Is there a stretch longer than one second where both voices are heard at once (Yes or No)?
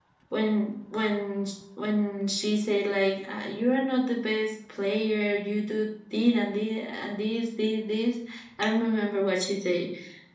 No